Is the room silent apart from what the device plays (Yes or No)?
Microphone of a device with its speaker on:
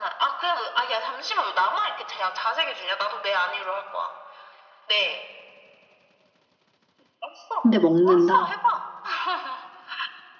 No